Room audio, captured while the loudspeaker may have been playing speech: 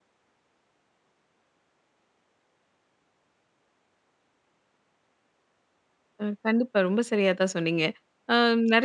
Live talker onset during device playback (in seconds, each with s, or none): 6.2 s